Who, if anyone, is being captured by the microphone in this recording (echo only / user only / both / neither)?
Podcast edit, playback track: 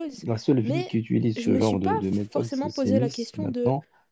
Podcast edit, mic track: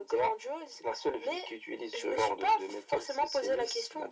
echo only